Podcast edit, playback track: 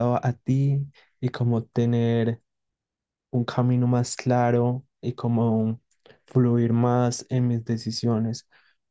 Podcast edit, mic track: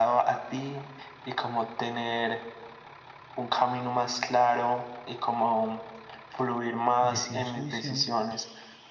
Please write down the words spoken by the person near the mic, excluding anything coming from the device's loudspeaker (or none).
decir su visión